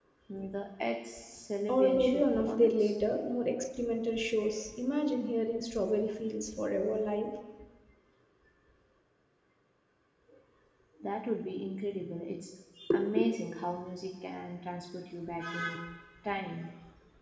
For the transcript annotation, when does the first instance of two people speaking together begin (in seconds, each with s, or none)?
1.7 s